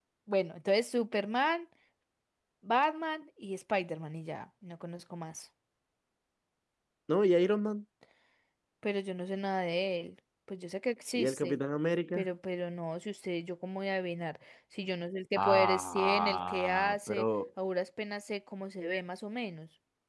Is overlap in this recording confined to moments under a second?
No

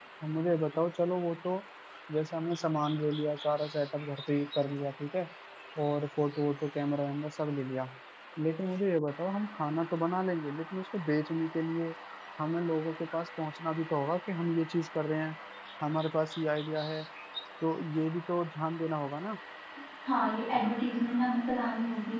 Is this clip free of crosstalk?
Yes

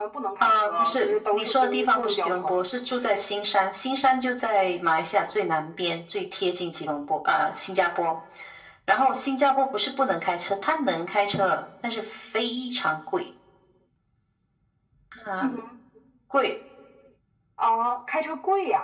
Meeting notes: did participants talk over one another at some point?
Yes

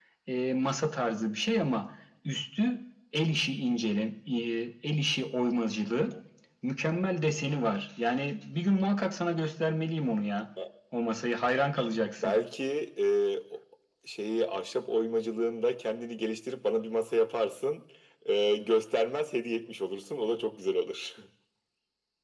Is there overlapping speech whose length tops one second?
No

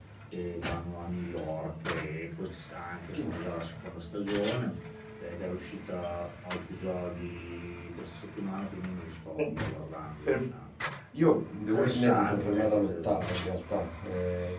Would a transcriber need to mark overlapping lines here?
Yes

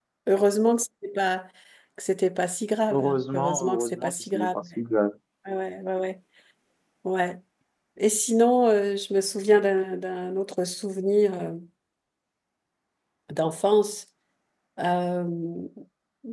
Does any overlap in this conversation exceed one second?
Yes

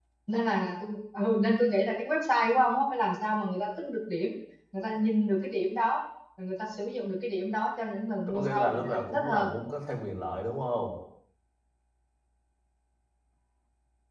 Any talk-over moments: Yes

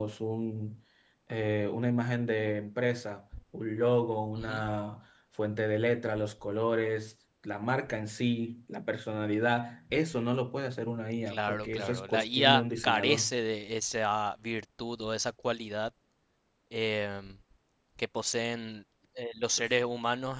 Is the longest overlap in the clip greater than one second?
Yes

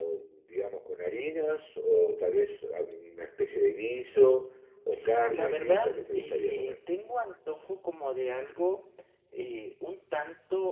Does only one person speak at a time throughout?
No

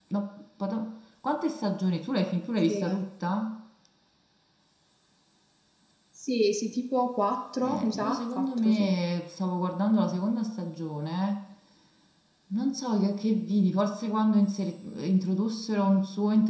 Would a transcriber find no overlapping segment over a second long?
No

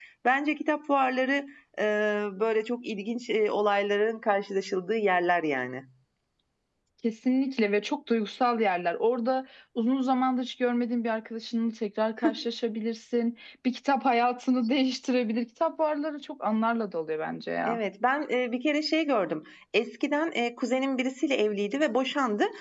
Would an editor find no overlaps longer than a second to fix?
Yes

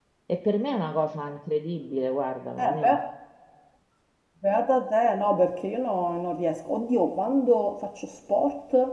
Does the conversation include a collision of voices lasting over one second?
No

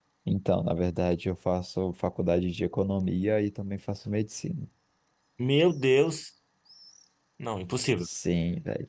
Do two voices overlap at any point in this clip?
No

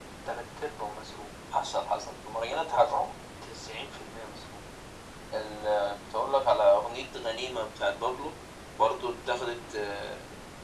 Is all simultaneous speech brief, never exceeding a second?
Yes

